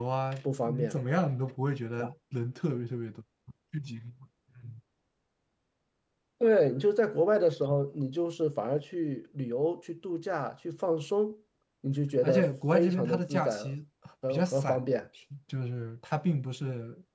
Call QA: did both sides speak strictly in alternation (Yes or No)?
No